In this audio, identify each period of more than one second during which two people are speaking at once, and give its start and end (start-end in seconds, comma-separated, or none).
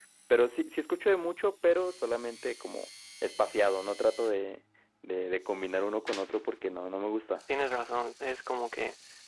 none